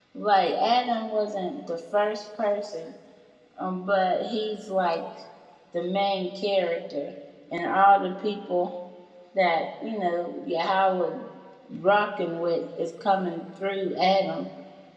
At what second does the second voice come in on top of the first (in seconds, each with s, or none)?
none